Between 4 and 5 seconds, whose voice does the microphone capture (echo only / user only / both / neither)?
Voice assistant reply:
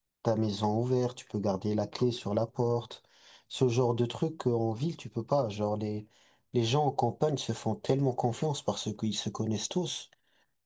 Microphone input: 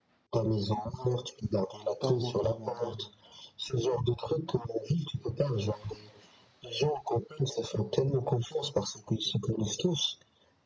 echo only